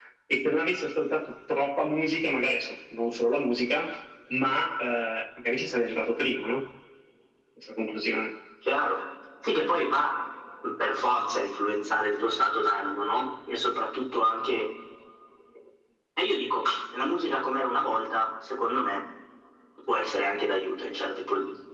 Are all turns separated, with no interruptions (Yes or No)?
Yes